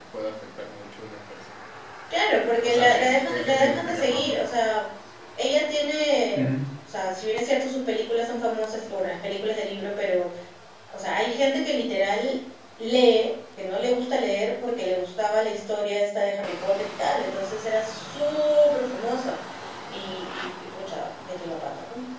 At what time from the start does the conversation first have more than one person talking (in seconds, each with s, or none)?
2.6 s